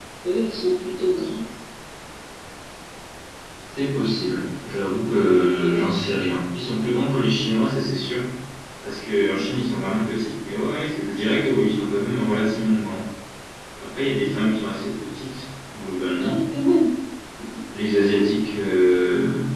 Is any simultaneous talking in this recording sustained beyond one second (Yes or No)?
No